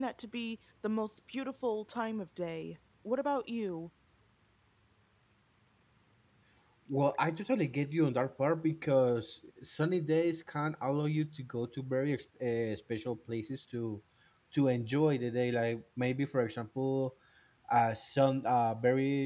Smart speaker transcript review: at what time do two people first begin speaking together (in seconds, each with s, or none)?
none